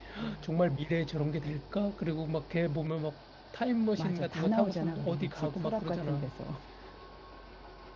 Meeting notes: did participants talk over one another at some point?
Yes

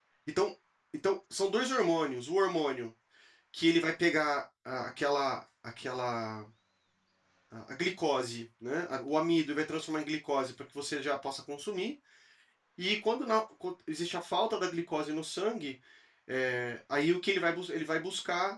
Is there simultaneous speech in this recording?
No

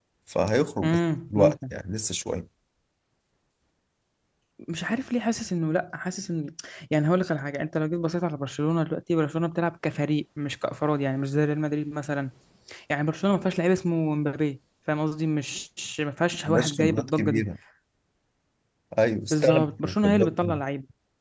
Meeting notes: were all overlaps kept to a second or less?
No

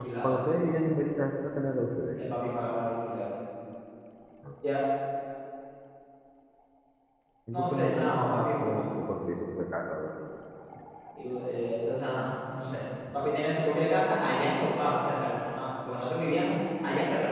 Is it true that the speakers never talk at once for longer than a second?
No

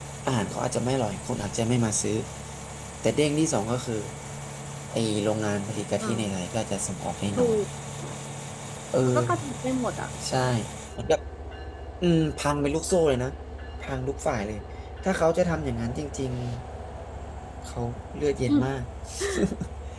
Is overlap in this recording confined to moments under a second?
Yes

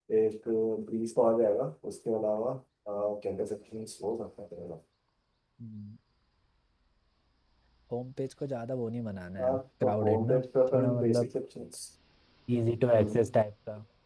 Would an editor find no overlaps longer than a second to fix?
No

